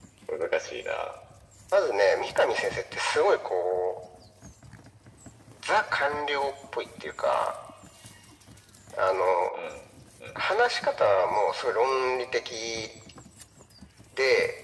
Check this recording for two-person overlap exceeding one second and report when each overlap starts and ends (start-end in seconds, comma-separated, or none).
none